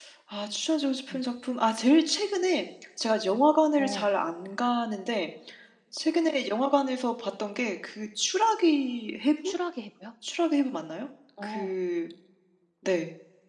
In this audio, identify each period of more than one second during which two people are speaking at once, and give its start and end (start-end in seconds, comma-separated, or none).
none